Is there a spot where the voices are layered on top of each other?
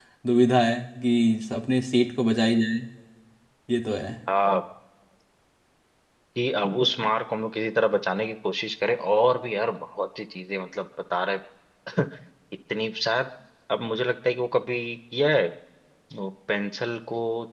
No

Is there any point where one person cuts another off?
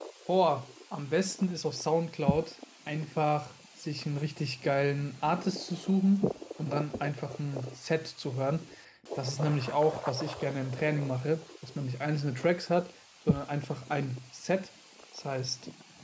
No

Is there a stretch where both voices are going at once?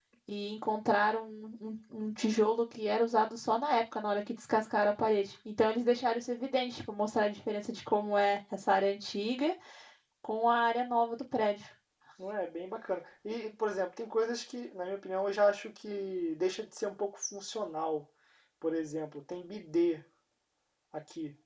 No

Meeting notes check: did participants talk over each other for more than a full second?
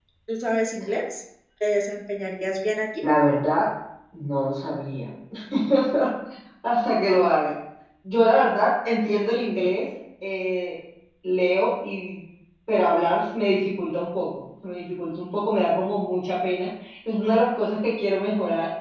No

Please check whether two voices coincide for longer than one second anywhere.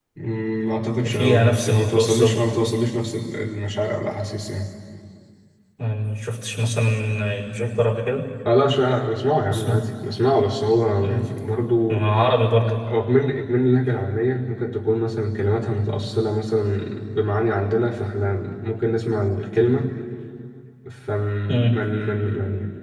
Yes, from 1.1 s

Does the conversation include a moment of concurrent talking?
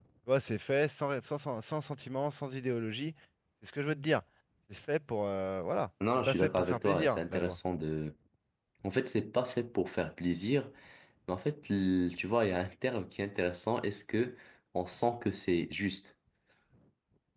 Yes, from 6.3 s

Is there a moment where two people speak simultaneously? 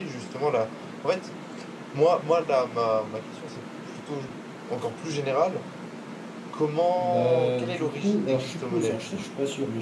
Yes, from 7.0 s

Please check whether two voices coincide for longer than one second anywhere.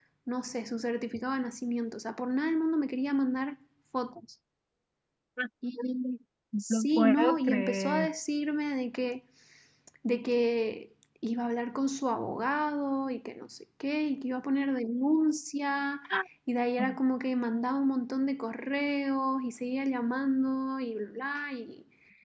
Yes, from 6.7 s

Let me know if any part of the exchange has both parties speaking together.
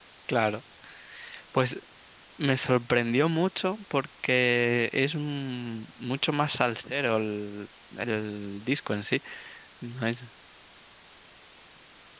No

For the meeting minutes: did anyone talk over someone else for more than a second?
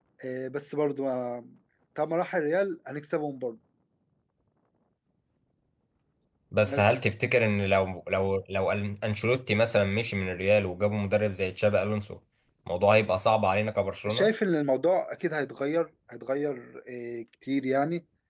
No

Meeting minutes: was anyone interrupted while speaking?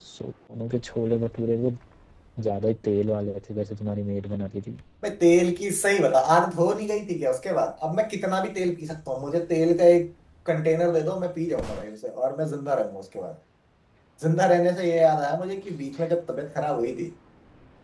No

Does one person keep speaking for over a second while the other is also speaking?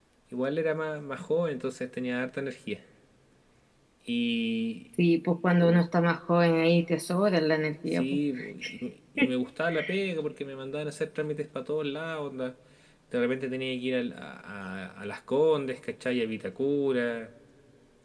No

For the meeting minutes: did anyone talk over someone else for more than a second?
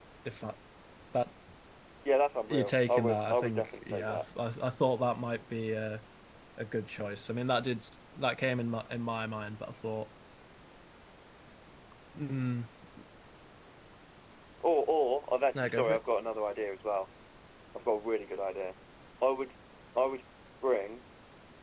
Yes, from 2.5 s

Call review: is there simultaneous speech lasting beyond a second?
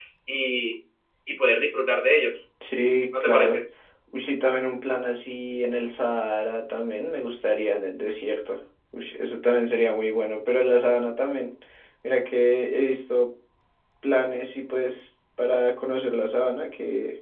No

